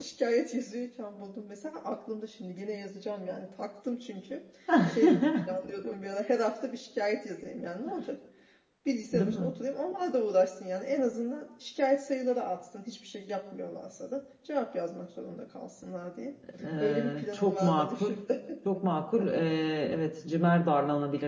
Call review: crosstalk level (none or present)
present